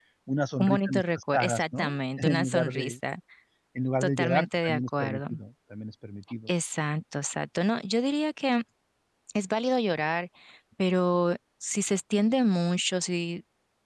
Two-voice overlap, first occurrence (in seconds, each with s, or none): 0.6 s